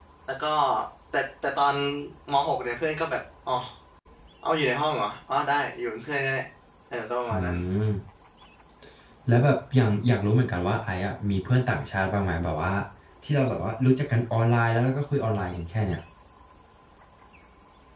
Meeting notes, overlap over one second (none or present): none